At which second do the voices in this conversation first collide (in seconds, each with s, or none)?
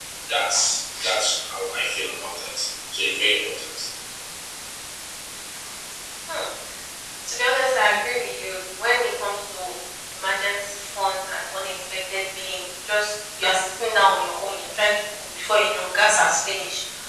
none